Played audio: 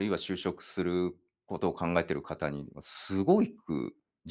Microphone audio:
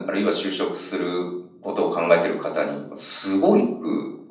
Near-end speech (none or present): none